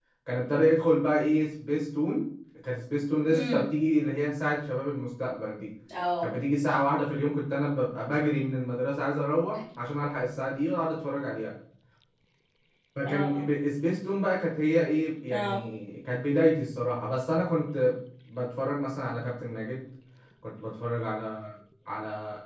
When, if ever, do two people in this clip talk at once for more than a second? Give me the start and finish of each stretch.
none

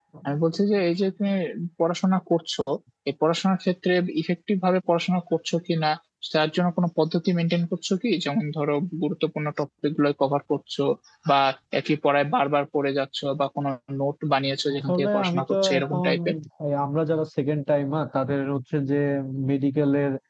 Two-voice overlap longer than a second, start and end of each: 14.7-16.1

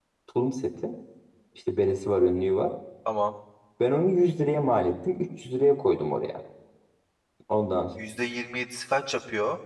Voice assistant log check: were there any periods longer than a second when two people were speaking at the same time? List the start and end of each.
none

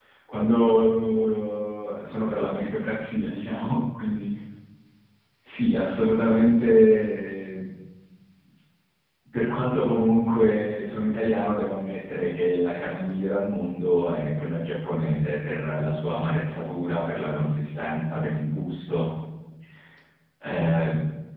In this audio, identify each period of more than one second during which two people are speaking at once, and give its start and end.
none

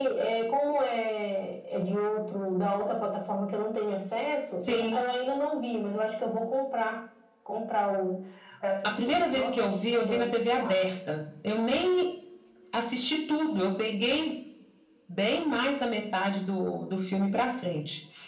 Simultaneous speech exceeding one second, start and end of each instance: 8.8-10.9

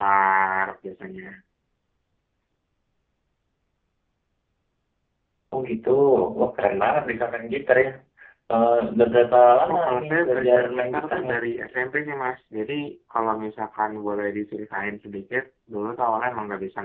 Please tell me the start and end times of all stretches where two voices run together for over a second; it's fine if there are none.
9.7-11.3

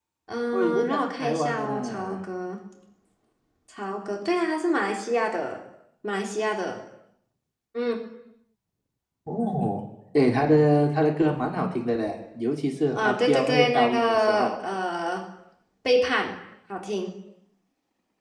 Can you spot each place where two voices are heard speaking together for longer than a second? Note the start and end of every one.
0.5-2.2, 13.0-14.5

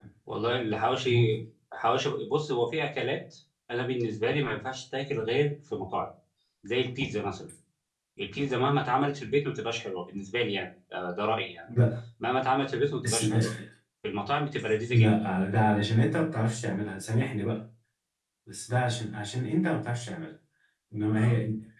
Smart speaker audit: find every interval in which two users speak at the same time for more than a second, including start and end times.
none

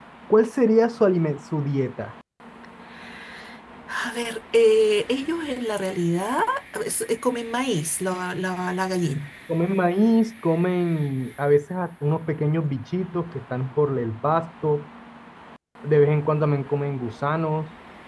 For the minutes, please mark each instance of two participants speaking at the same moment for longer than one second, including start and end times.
none

